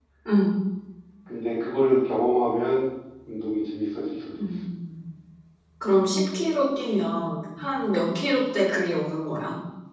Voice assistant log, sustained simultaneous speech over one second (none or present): none